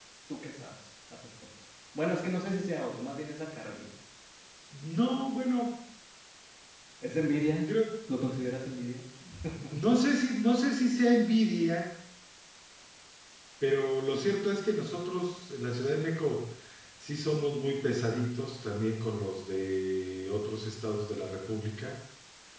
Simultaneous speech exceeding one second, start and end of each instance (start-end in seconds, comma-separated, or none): none